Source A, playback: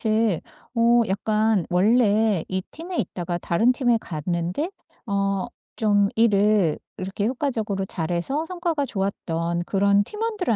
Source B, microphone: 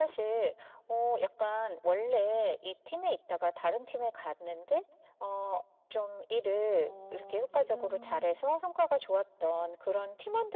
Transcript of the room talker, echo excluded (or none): 어 지금